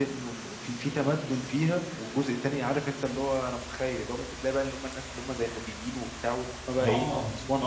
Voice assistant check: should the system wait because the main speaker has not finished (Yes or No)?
No